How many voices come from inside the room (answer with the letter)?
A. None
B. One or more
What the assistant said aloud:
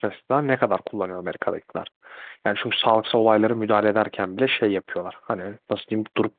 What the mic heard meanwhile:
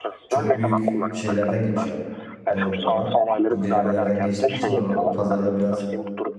B